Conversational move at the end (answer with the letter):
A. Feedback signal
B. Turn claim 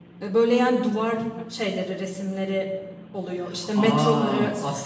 B